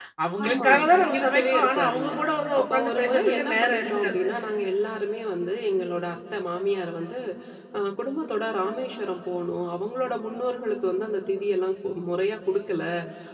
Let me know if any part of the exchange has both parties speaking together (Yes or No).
Yes